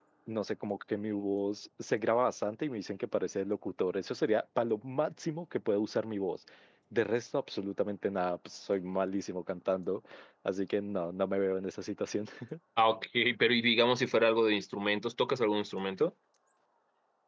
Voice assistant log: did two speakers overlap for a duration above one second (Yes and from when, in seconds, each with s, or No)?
No